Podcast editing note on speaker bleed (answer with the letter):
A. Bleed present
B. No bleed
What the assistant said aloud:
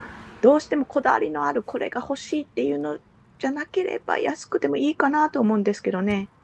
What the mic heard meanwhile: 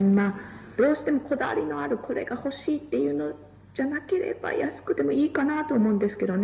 A